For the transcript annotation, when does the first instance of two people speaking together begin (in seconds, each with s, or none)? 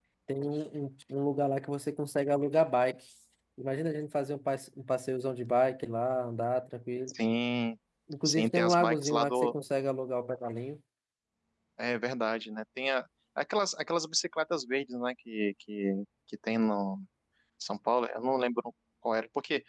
8.2 s